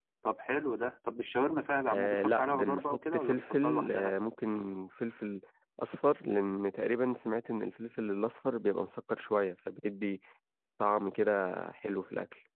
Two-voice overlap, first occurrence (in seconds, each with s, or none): 1.9 s